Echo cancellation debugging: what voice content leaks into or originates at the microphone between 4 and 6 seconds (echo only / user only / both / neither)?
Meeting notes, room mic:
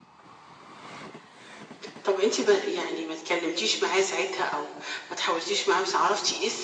echo only